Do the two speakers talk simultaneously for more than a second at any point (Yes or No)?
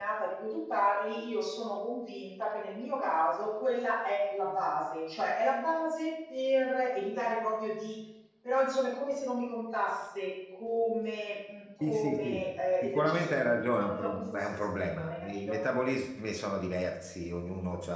Yes